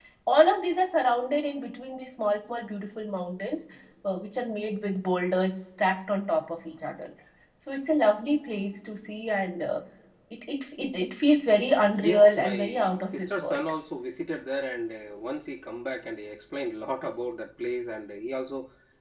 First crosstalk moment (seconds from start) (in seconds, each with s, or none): 12.0 s